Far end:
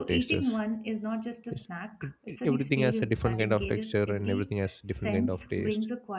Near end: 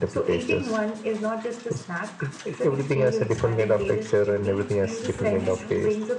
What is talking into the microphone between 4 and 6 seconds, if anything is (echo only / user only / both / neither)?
both